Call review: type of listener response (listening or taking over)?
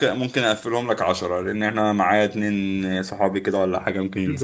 taking over